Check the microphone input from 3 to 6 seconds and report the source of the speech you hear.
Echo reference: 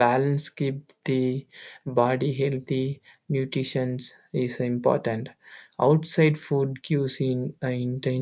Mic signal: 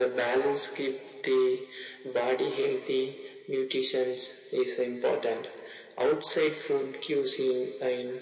echo only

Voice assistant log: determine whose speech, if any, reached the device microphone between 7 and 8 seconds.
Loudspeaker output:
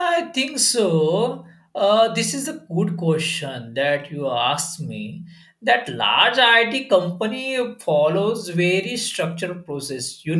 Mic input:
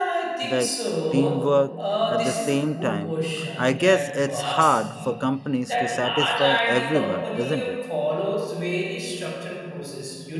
both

